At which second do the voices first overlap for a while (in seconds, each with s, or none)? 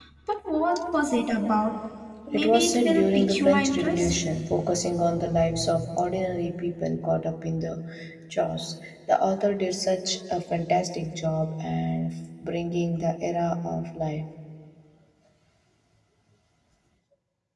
2.3 s